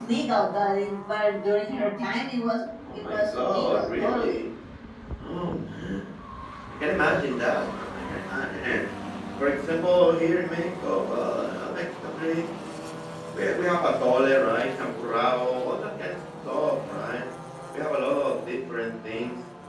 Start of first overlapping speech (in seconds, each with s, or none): 2.8 s